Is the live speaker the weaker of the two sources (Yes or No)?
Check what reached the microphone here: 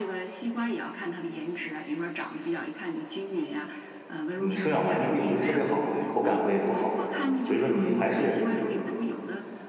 No